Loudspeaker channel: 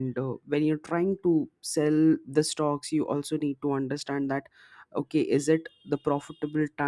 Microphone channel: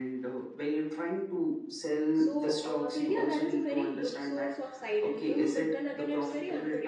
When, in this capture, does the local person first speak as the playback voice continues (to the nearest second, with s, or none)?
2 s